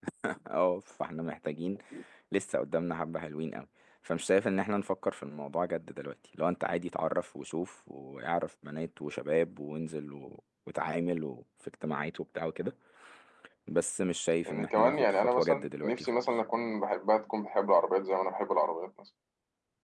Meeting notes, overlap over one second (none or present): present